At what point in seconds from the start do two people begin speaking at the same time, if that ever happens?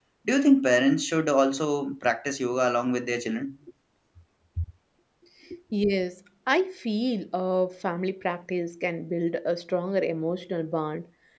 none

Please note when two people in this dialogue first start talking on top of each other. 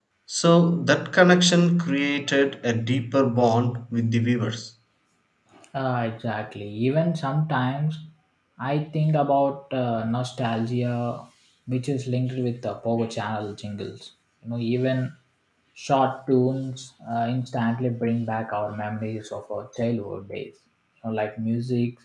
none

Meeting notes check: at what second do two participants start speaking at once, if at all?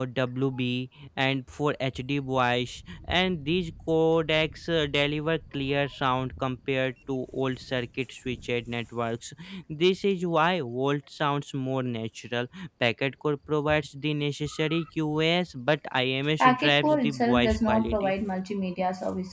16 s

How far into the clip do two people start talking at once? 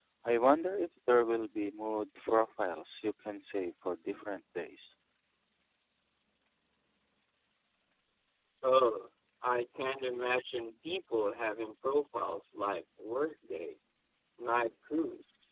none

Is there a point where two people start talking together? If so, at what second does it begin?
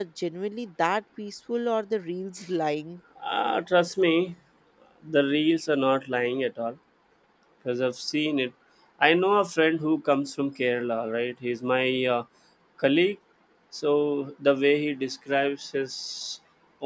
none

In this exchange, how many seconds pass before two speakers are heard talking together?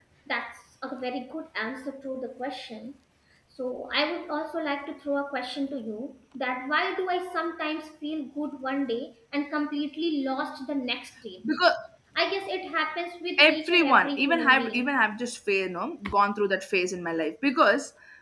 13 s

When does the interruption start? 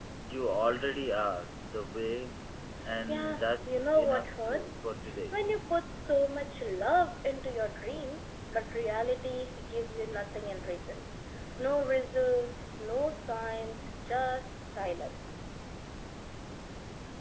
3 s

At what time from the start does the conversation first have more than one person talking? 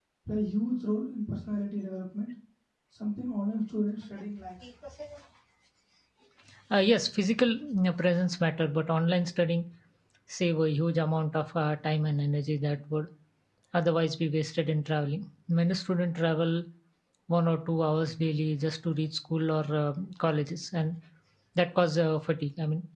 none

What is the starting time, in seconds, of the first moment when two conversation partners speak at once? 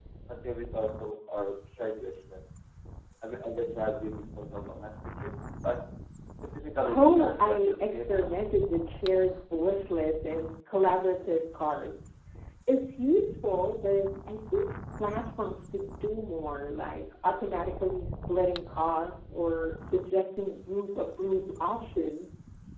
7 s

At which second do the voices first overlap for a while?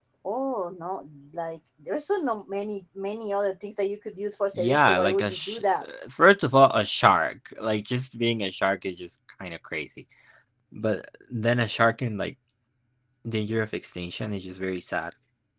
5 s

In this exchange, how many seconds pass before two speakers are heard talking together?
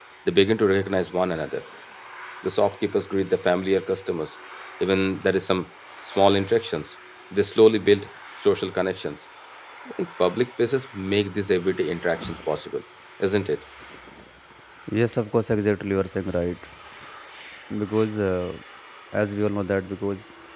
none

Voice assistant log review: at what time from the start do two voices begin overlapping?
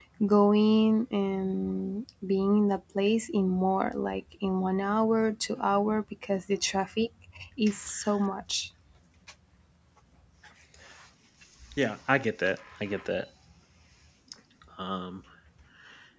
none

